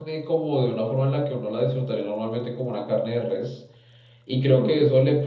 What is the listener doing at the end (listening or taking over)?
listening